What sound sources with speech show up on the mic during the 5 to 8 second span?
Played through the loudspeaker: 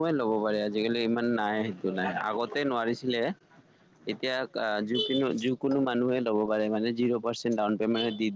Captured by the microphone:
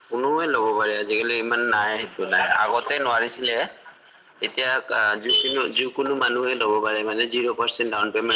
echo only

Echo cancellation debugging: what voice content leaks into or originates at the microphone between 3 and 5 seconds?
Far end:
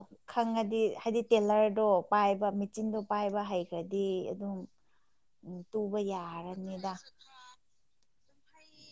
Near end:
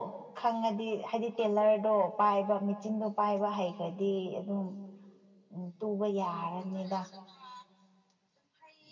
echo only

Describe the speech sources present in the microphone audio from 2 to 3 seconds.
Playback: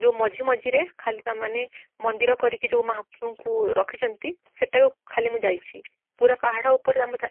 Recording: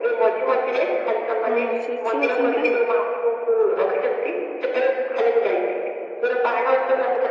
both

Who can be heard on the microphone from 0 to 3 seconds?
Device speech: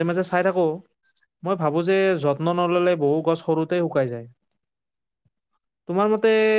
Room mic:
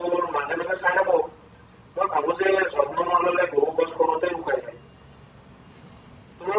echo only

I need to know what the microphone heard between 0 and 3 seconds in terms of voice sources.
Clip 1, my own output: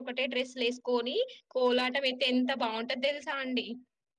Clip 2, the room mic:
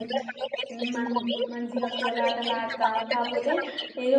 both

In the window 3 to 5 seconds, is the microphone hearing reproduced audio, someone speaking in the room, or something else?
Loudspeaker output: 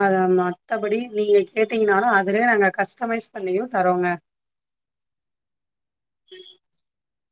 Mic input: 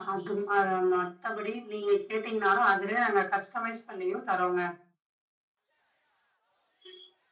echo only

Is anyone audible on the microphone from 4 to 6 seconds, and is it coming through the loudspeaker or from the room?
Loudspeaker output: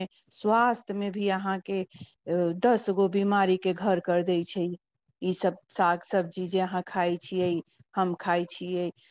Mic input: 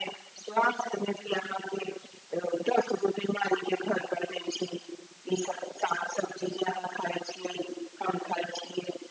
echo only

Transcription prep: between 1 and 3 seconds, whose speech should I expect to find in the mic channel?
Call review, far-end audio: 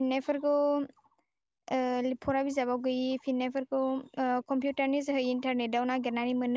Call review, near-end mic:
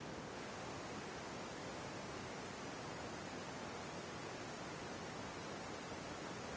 neither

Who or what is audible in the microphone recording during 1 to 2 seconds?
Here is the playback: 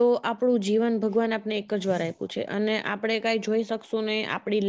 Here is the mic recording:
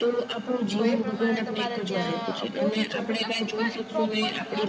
both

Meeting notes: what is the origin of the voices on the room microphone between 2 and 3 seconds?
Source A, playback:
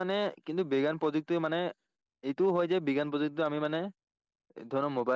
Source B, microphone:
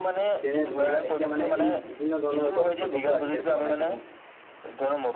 both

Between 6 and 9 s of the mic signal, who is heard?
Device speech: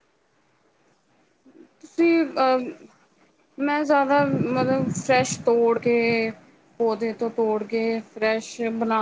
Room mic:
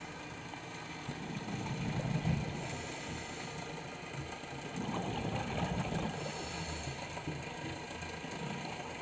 neither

